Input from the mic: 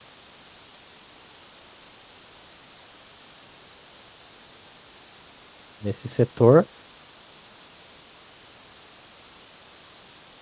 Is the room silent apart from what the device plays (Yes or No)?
No